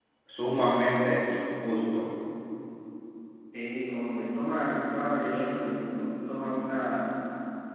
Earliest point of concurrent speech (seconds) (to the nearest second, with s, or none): none